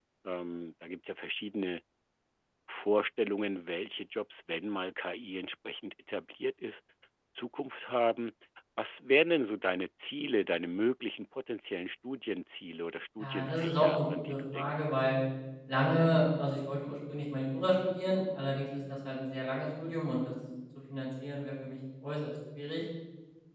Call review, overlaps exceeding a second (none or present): present